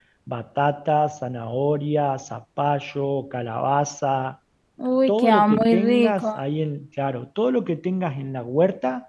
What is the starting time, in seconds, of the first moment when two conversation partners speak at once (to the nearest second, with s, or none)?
5 s